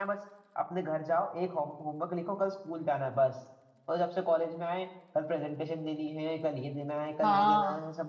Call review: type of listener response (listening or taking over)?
taking over